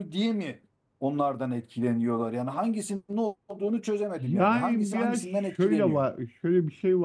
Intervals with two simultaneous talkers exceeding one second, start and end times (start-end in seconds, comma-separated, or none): 4.2-6.0